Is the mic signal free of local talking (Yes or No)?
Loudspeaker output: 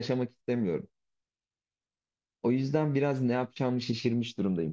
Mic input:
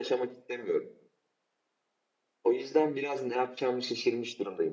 Yes